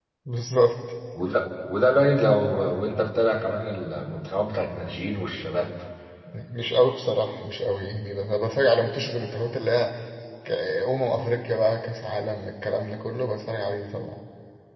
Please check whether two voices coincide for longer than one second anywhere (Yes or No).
No